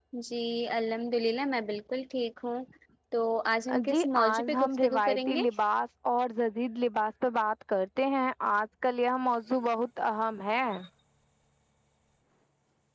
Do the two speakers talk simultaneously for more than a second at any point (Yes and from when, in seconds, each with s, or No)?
Yes, from 3.9 s